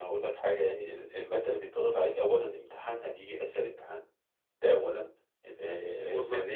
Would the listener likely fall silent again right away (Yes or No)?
Yes